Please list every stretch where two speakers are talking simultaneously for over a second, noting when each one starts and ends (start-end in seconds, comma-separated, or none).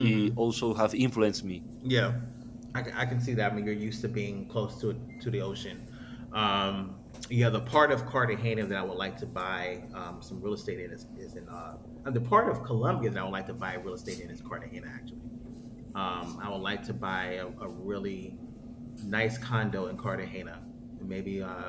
none